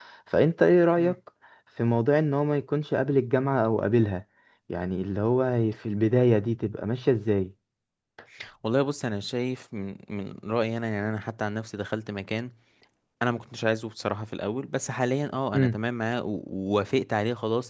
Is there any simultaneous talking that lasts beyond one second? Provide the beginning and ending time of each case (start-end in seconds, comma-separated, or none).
none